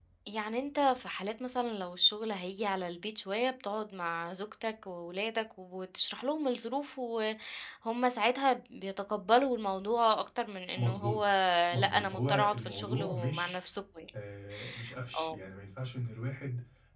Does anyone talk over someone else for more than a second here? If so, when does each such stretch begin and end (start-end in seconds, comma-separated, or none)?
11.8-13.6